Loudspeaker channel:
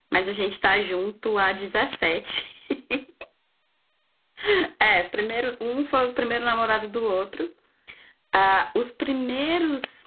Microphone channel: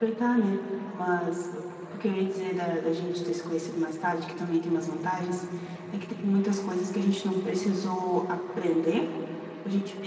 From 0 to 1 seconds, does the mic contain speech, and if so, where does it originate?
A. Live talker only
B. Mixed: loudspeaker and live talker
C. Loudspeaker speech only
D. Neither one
A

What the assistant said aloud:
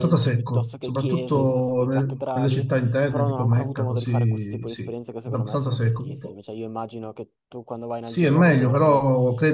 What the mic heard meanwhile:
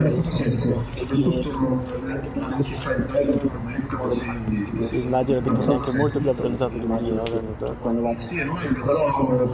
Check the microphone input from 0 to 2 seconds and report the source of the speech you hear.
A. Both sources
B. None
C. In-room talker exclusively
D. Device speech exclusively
D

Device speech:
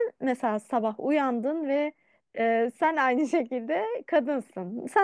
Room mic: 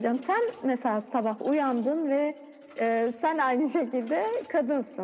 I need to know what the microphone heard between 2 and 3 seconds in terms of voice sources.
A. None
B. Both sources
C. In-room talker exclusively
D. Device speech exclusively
D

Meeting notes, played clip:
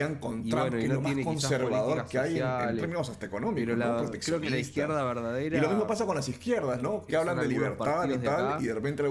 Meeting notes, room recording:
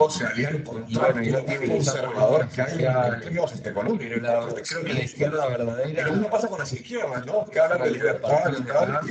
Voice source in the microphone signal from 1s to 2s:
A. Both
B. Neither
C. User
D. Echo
A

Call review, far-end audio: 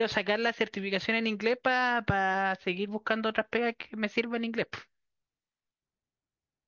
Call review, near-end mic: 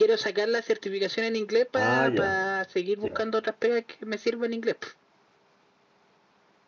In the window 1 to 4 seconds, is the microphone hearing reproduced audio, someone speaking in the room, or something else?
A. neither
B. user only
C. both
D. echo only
C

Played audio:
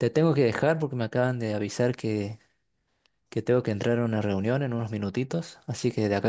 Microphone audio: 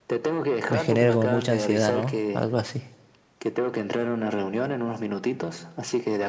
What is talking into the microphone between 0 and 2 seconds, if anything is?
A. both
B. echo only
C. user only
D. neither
A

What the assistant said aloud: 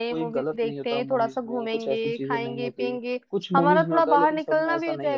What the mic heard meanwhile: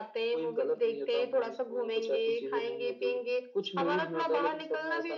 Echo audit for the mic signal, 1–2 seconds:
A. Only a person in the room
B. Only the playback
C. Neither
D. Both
B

